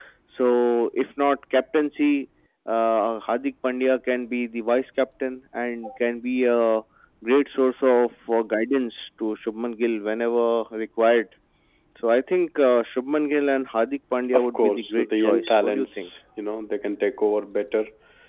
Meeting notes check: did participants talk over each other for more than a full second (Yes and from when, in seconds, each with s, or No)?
Yes, from 14.3 s